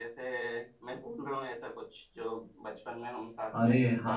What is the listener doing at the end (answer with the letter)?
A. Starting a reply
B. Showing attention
A